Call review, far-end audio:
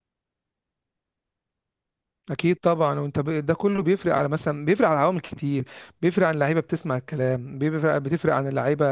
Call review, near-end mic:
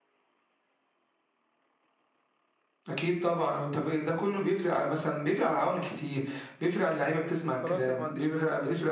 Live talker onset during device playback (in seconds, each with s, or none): 7.6 s